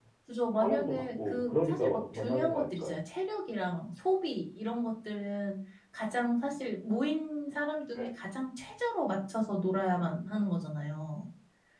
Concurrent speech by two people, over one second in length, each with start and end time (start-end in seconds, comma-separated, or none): 0.6-2.9